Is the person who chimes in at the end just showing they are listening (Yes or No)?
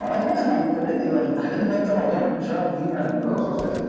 No